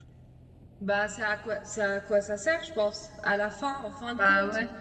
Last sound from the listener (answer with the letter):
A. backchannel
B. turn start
A